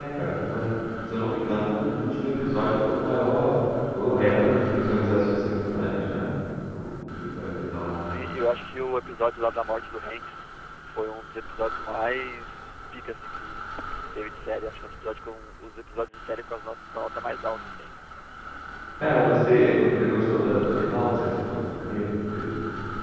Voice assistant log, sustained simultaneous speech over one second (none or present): none